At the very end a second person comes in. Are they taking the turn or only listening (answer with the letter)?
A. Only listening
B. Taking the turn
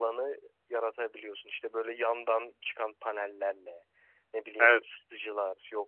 A